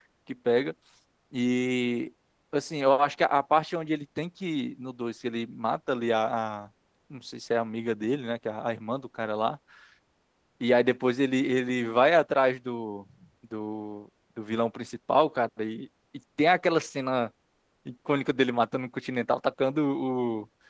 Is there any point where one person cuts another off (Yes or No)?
No